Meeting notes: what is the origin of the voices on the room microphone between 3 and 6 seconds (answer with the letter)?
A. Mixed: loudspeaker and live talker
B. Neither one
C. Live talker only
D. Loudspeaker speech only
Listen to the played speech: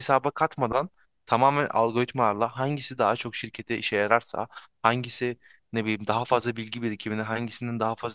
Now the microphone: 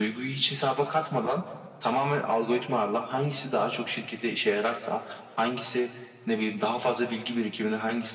D